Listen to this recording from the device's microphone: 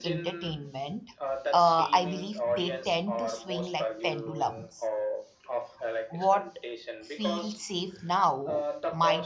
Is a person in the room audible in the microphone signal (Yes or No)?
Yes